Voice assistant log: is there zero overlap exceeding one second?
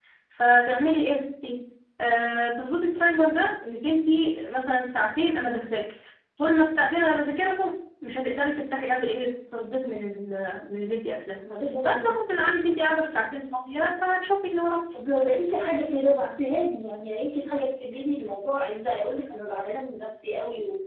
Yes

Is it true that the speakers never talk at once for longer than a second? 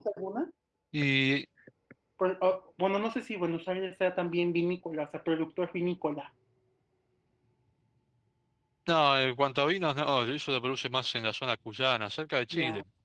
Yes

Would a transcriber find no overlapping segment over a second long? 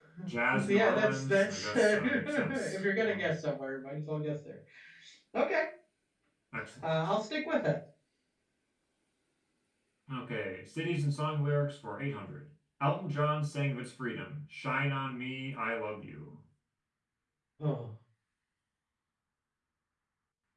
No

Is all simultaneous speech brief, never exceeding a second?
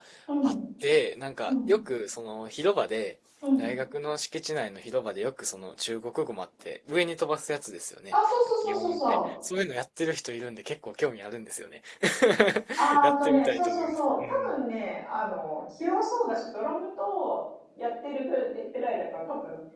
No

